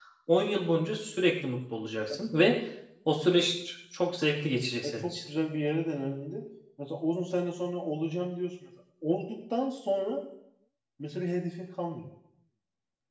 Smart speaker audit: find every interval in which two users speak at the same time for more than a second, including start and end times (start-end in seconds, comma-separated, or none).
none